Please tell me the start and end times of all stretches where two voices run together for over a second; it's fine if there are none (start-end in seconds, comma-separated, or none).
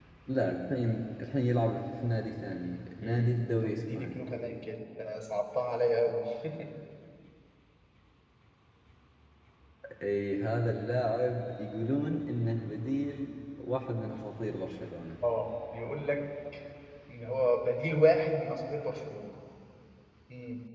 3.0-4.2